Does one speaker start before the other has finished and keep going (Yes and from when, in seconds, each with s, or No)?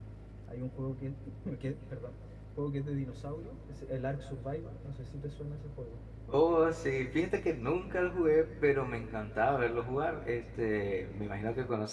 No